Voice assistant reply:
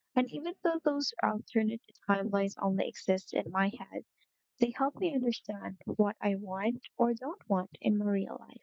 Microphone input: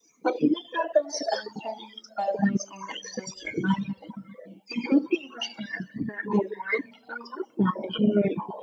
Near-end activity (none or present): none